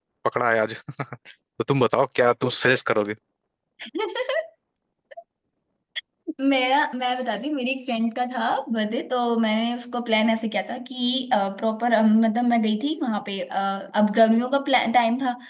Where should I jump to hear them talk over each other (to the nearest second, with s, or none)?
none